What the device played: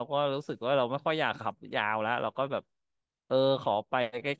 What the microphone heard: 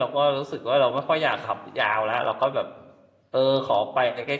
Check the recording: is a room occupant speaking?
No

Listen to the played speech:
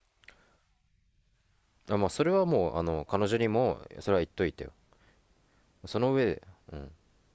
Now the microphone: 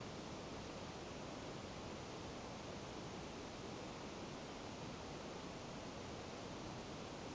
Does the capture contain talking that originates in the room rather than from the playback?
No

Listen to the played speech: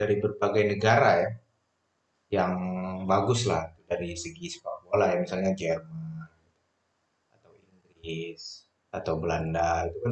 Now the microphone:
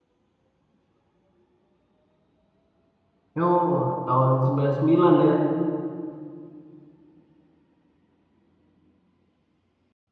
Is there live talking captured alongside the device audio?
Yes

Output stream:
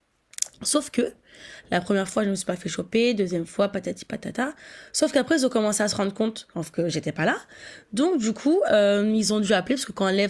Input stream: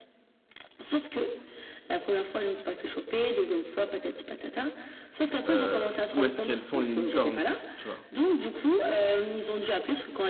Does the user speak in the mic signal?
Yes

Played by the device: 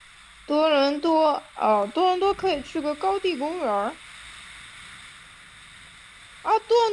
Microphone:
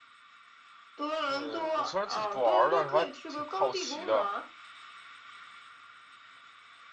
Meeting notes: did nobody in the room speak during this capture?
No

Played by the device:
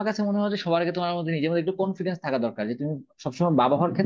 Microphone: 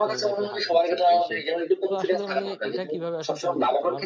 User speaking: Yes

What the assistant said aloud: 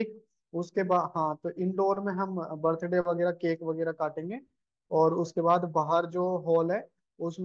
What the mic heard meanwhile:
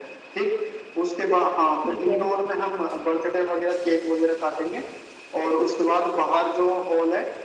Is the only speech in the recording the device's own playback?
No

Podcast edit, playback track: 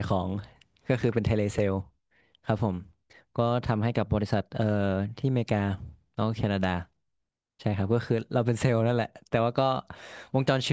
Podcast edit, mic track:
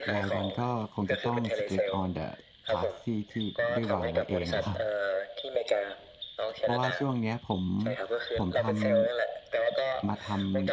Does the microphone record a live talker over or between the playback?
Yes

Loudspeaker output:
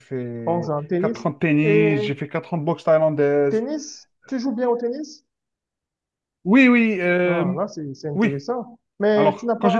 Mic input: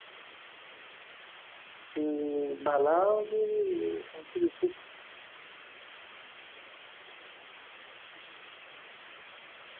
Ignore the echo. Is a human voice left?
Yes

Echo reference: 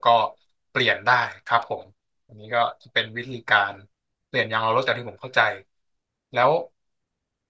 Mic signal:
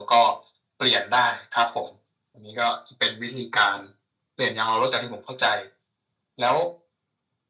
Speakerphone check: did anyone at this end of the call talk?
No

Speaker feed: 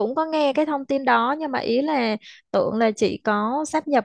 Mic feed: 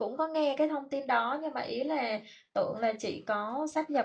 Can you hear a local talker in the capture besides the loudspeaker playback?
No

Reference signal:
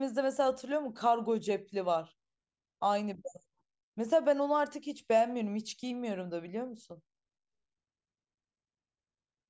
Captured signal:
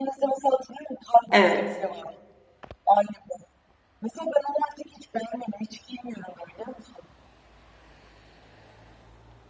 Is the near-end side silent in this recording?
No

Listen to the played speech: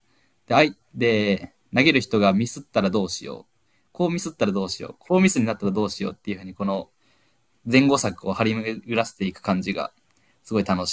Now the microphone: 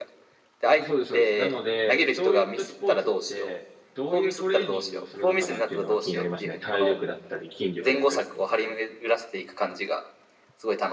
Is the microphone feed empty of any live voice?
No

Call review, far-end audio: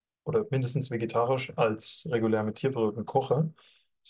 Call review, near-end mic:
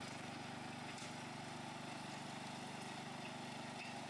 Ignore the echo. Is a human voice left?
No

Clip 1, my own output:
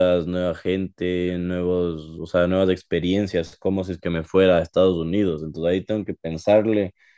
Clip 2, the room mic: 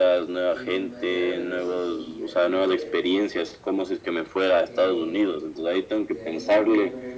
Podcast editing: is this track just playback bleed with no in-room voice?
No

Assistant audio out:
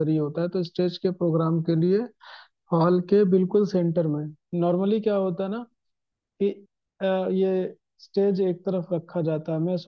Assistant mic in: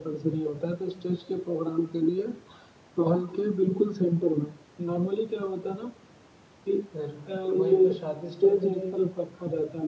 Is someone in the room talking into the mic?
Yes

